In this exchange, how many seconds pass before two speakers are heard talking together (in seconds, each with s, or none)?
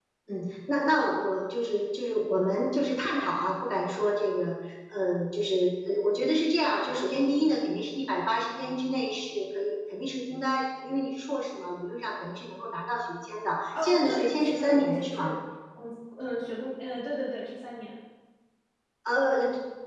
13.7 s